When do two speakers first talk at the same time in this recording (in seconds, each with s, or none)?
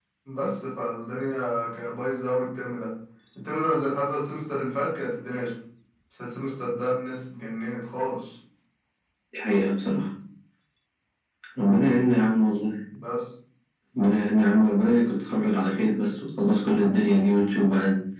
none